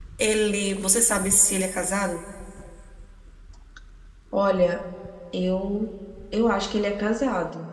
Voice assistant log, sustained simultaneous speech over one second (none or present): none